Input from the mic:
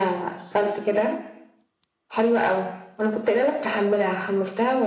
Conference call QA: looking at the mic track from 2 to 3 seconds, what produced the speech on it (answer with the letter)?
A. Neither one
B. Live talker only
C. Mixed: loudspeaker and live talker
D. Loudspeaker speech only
D